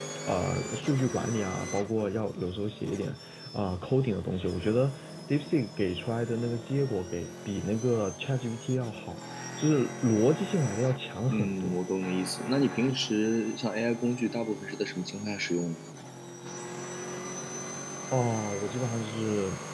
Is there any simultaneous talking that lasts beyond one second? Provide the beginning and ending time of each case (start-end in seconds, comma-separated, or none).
none